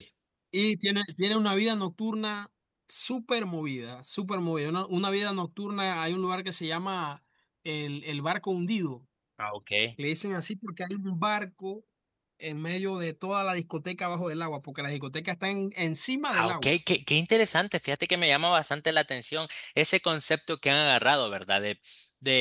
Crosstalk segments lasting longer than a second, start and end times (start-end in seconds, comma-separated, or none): none